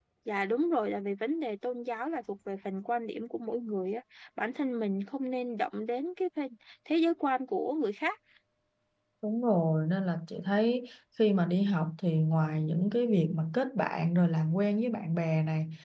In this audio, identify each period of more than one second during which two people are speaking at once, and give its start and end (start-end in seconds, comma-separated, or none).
none